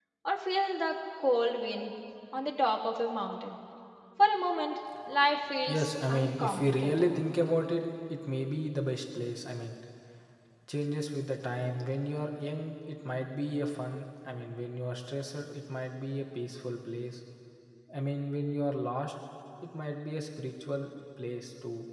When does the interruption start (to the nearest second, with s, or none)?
6 s